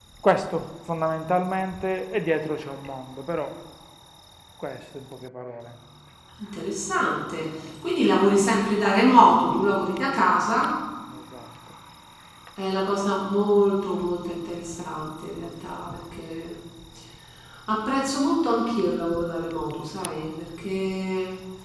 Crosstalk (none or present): none